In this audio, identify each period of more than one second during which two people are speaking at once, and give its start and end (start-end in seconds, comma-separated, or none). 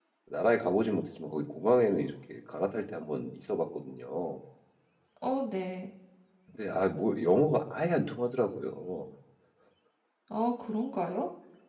none